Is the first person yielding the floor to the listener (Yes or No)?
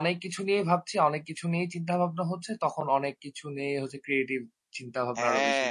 Yes